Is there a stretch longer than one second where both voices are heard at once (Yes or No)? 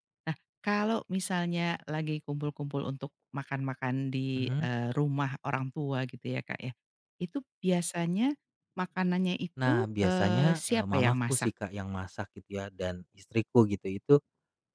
Yes